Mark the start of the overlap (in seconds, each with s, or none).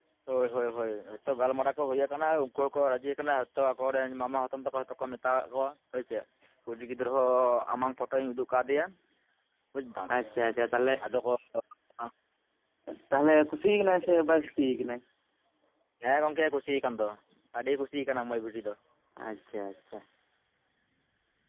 none